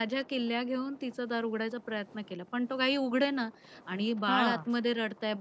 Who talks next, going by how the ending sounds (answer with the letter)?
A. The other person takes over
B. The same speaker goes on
B